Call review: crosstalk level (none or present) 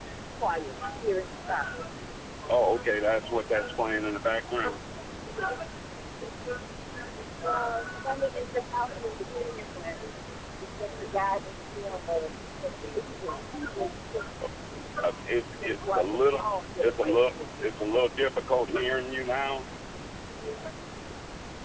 present